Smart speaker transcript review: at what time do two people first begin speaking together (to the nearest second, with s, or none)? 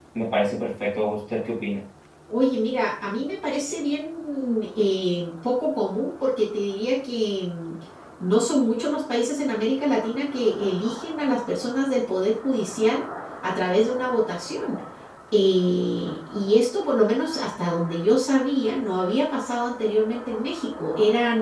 none